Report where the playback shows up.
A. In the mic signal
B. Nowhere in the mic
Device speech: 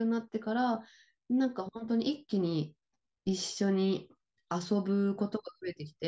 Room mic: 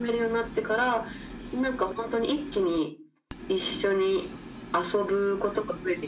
A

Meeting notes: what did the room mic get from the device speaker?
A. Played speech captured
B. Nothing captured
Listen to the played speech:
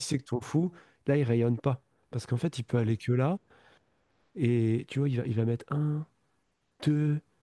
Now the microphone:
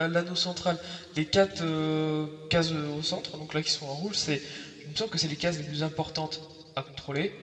B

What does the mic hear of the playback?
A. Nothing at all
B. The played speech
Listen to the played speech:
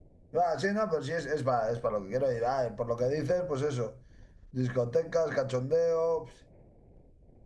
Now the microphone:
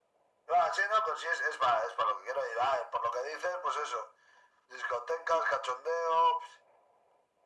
B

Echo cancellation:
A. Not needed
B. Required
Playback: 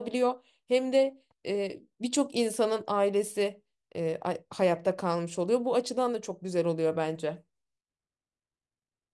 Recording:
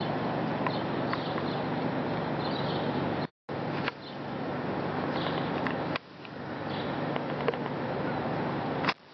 A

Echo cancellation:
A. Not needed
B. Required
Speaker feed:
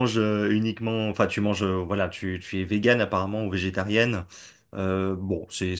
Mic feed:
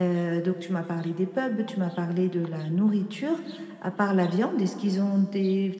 A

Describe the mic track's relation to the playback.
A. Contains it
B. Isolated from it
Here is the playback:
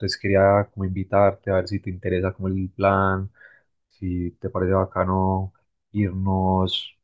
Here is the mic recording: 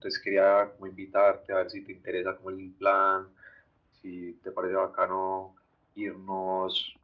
A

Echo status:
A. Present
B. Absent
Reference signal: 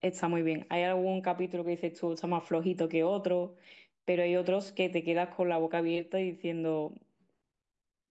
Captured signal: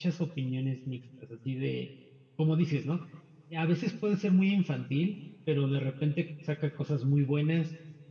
B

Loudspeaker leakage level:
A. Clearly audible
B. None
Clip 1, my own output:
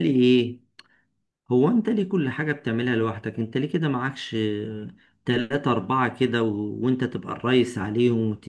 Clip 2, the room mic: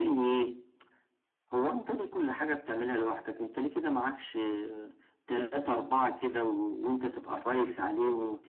A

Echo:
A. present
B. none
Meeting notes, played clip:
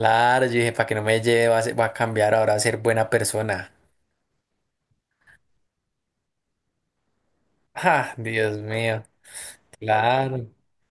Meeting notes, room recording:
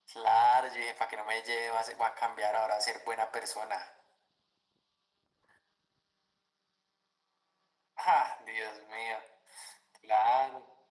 A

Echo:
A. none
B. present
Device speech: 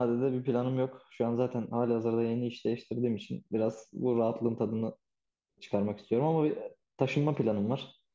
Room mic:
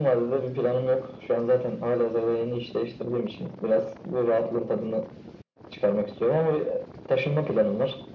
B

